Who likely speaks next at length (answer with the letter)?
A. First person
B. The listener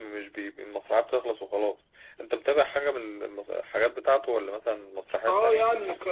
B